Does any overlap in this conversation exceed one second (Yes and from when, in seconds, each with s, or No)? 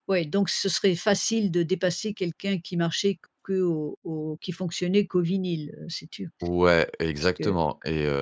No